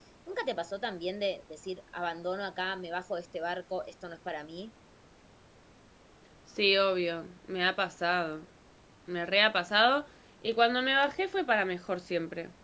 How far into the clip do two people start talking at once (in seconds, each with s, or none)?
none